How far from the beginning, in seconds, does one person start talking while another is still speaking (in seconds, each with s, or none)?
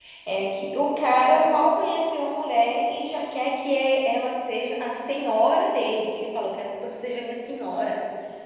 none